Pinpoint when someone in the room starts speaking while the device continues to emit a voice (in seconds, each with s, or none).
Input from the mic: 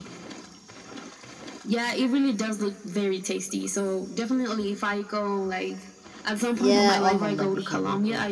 6.5 s